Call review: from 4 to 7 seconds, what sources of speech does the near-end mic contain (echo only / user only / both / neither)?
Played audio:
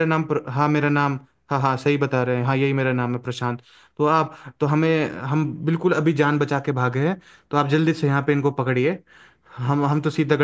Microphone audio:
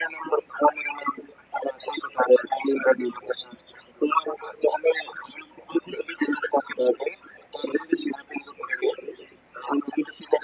echo only